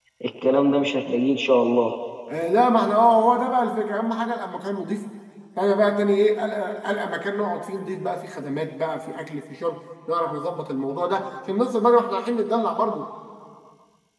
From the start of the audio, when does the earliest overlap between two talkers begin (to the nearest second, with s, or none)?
none